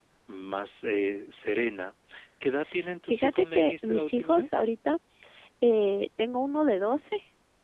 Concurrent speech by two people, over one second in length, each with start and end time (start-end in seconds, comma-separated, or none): 3.1-4.7